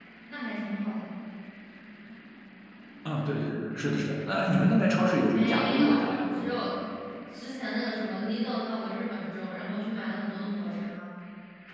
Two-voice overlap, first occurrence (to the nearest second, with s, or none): 5 s